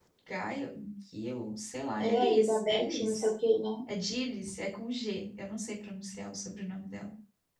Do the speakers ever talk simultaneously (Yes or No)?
Yes